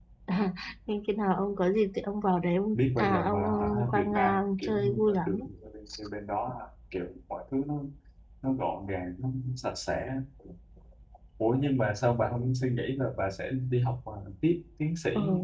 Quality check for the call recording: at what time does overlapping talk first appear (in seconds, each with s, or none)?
2.7 s